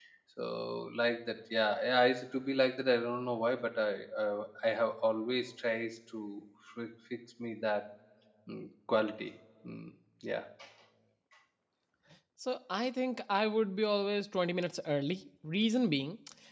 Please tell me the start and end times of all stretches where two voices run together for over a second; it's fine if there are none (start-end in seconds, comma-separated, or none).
none